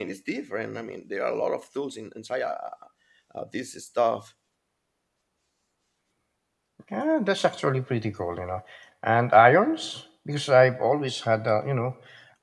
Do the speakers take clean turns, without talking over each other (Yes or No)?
Yes